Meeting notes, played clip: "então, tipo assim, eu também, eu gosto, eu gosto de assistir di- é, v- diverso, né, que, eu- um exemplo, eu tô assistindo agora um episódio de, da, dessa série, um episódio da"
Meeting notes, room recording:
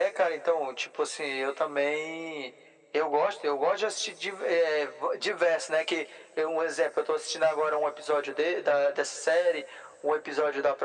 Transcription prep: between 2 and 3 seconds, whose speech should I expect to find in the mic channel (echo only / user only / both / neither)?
echo only